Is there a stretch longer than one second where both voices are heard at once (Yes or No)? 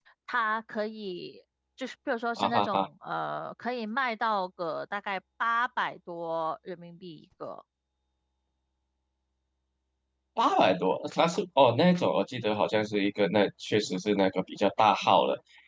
No